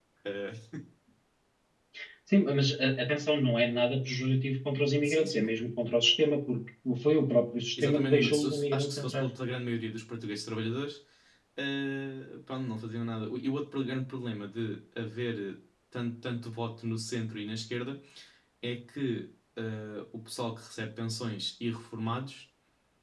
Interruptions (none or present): present